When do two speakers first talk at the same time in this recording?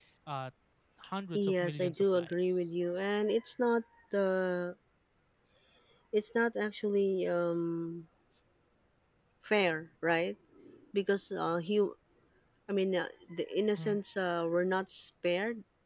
1.3 s

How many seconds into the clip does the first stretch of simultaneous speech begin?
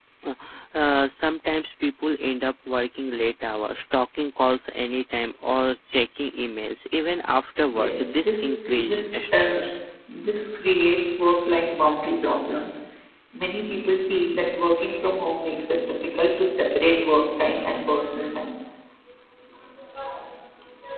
7.7 s

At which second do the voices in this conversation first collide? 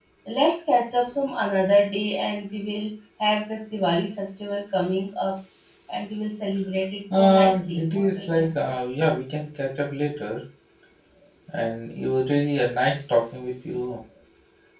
7.1 s

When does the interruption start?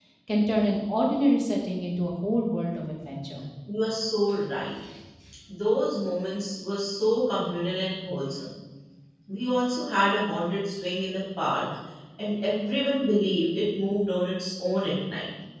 none

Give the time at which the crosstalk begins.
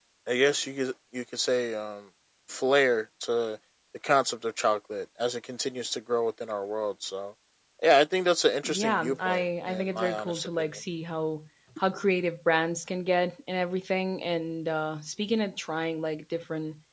8.6 s

